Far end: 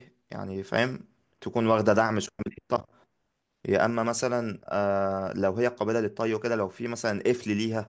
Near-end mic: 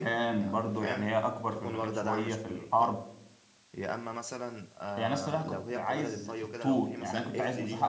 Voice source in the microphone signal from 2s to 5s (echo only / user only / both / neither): both